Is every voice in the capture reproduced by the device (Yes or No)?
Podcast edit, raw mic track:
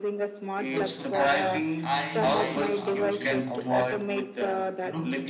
No